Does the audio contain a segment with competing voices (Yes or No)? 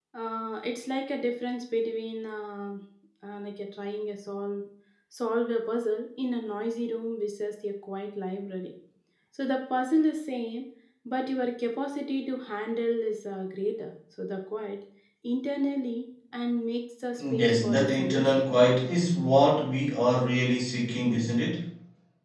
Yes